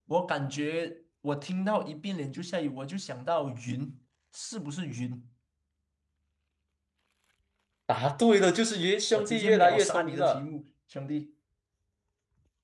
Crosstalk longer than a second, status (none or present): present